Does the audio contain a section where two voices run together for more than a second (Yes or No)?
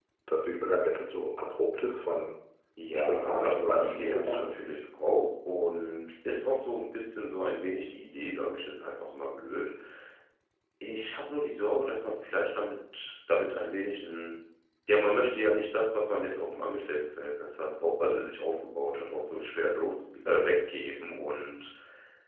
Yes